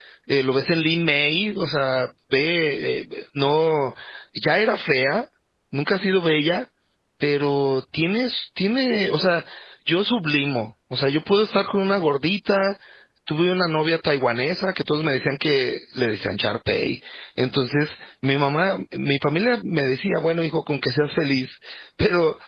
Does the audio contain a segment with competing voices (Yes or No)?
No